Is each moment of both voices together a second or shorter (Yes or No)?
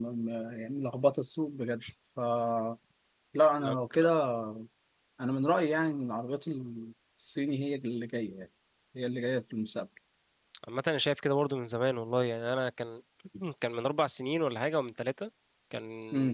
Yes